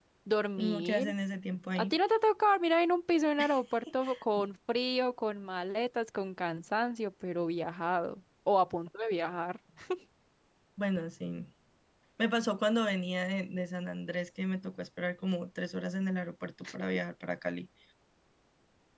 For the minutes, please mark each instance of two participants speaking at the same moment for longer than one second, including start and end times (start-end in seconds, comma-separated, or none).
none